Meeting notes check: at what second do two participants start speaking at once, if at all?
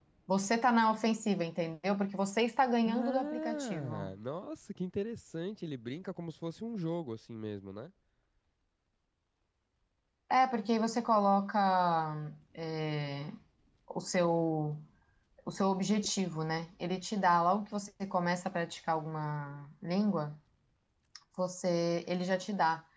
2.9 s

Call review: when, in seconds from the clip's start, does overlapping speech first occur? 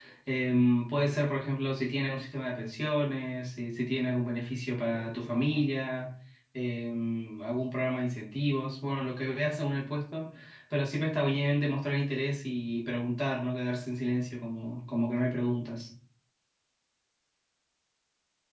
none

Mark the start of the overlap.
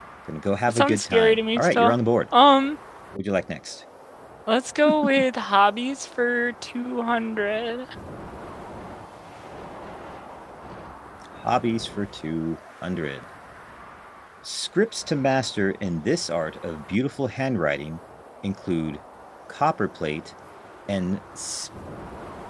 0.7 s

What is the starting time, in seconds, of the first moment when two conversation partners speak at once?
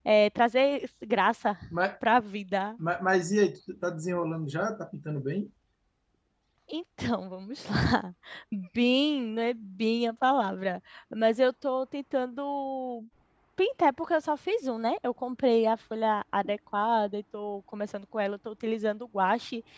none

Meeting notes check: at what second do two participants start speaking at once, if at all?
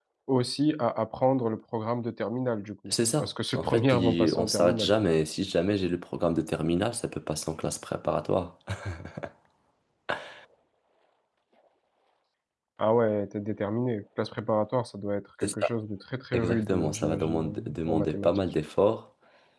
2.9 s

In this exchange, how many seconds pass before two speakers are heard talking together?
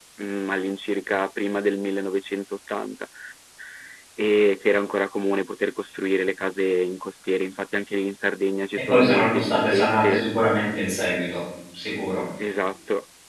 8.9 s

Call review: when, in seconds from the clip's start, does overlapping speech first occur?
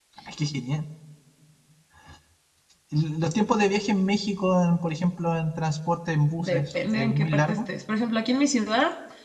6.4 s

